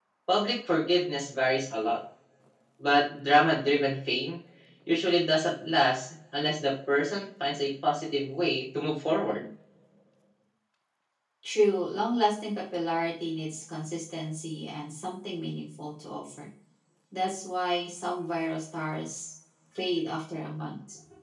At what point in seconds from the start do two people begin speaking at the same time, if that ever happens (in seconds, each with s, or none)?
none